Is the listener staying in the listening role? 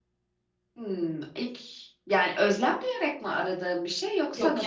No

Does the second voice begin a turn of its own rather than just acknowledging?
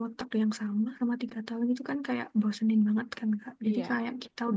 No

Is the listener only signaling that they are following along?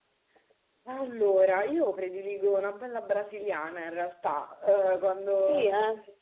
Yes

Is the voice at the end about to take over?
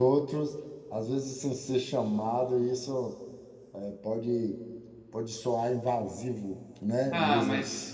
Yes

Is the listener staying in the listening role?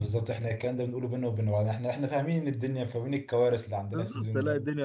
No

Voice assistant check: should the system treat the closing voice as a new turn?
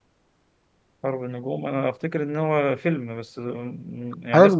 Yes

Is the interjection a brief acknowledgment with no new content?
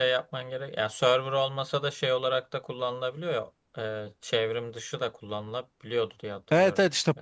No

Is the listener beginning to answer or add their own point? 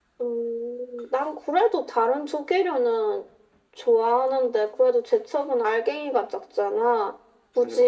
No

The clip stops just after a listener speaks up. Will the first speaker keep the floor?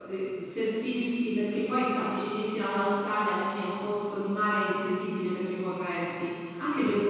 Yes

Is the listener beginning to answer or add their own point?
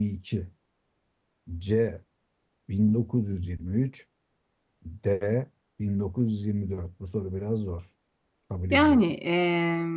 Yes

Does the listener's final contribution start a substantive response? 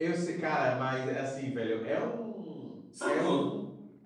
Yes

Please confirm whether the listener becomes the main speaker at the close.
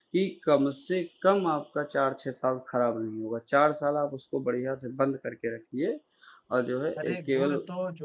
Yes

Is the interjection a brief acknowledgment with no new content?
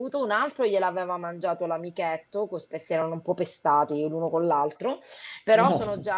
Yes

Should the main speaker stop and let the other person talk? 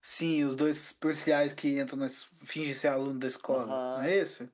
Yes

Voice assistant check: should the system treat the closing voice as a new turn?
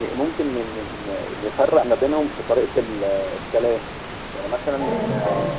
No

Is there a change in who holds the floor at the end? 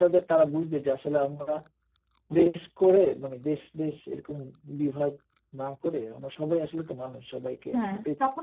Yes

